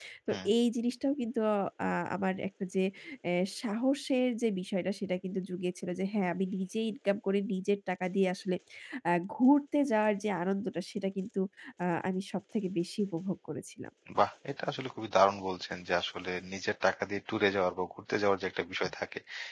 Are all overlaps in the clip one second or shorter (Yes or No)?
Yes